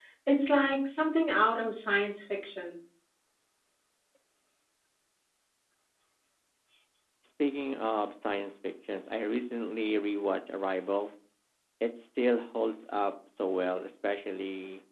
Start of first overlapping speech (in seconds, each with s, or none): none